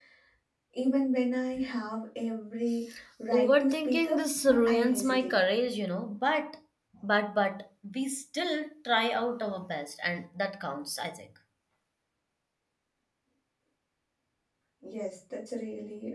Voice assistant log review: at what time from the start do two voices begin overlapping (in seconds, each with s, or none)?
3.3 s